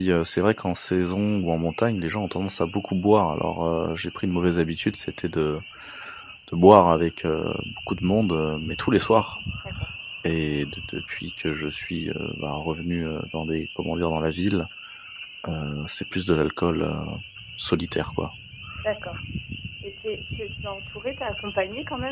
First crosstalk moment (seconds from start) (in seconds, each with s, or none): none